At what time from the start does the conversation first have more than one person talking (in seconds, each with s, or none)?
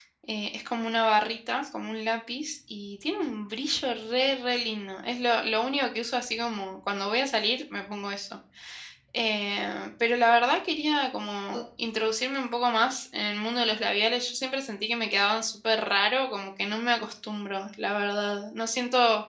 none